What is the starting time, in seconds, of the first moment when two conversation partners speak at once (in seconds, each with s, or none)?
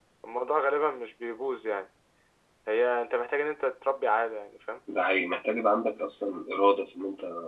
none